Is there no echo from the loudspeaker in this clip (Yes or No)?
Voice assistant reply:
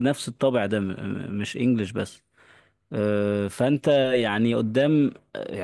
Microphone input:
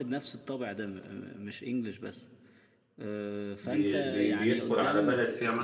No